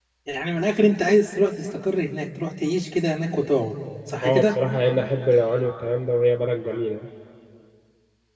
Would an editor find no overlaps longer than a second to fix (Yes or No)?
Yes